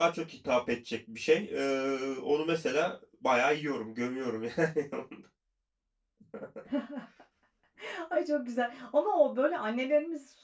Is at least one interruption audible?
No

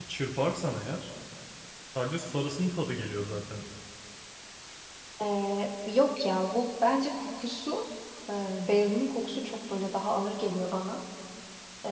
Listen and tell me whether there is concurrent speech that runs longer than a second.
No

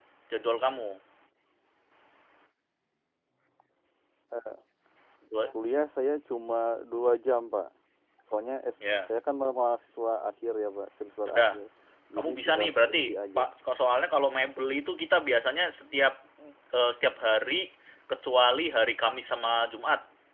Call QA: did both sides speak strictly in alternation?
No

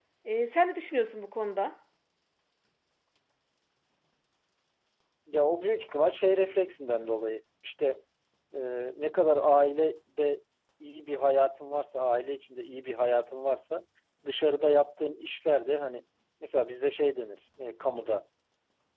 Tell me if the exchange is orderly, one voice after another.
Yes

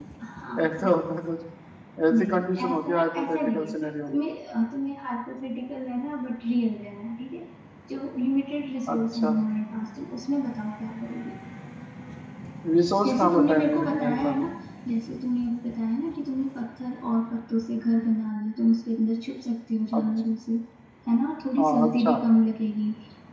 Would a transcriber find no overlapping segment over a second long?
No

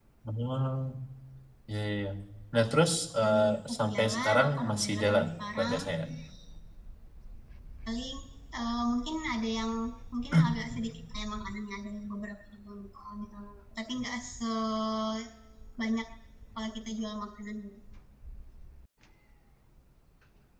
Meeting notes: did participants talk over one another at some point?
Yes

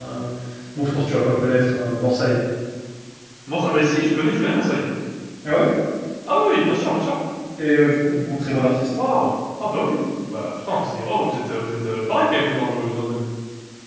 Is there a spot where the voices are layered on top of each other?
No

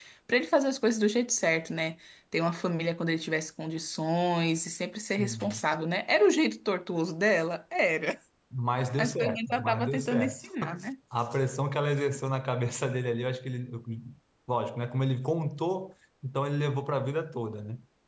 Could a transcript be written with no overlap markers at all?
No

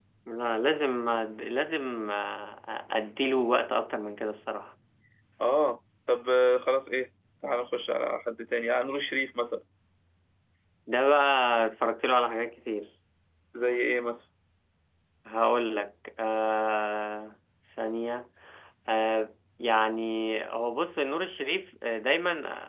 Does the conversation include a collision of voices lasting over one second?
No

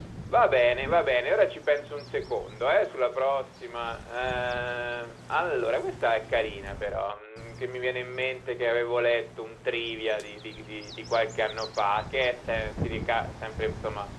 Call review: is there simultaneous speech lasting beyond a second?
No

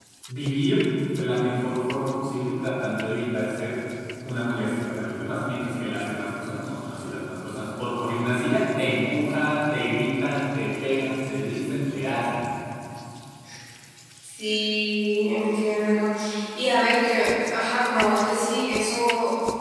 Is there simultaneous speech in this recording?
No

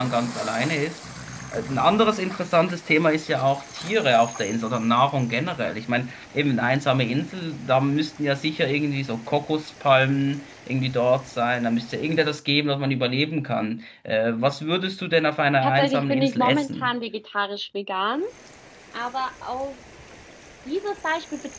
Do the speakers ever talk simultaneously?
Yes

